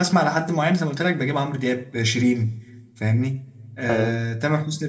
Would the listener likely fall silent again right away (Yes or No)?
Yes